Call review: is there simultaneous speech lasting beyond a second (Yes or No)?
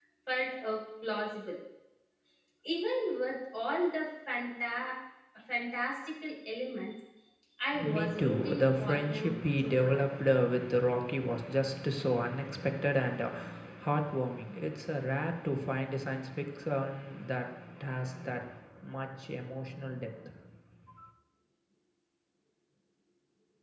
Yes